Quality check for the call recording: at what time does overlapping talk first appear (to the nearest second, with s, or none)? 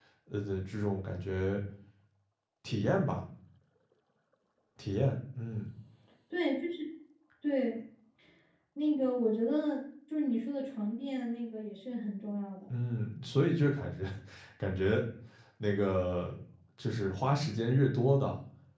none